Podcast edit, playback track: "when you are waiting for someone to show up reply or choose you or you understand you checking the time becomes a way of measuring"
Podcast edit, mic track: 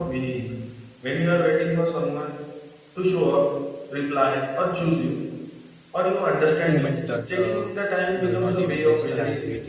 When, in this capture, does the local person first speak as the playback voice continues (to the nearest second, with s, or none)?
7 s